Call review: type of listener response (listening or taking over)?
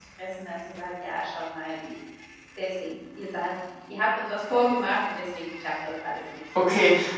taking over